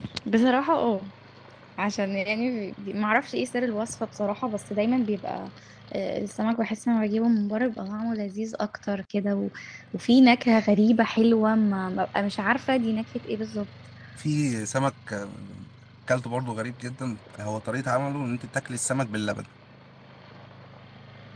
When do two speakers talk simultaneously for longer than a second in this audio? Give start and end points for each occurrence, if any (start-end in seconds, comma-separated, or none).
none